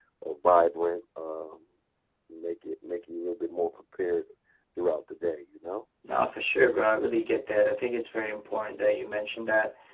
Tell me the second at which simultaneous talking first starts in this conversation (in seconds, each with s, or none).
none